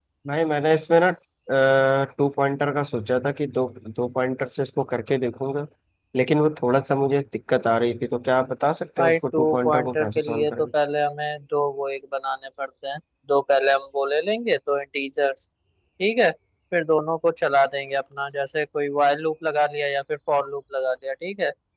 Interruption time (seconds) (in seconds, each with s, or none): 9.0 s